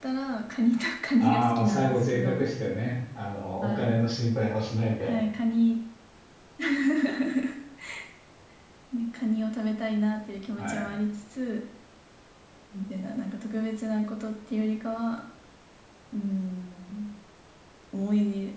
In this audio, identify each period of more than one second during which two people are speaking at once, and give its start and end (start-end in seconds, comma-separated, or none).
1.2-2.5